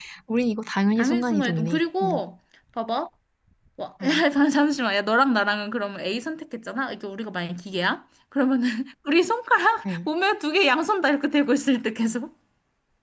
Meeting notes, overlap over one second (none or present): present